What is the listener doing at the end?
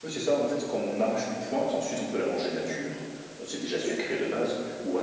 listening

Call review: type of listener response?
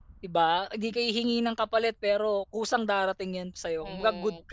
taking over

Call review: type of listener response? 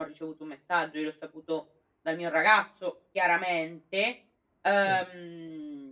listening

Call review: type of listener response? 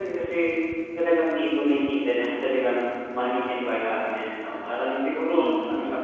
listening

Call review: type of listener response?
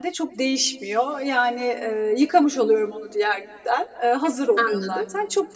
listening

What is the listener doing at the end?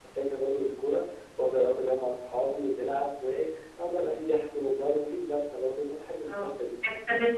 taking over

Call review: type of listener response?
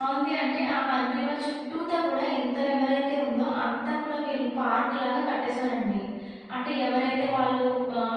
listening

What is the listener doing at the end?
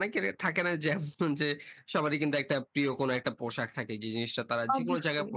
listening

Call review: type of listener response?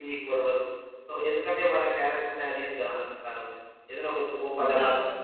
listening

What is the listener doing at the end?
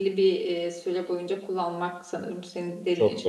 listening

